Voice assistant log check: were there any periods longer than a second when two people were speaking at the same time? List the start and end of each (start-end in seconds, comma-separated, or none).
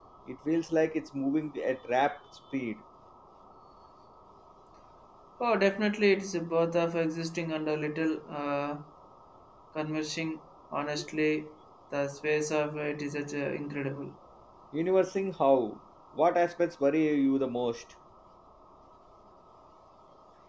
none